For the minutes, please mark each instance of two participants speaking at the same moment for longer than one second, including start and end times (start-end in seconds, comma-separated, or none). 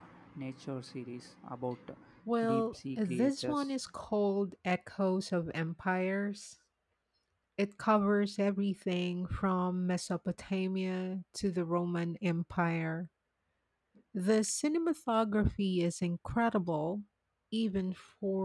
2.4-3.7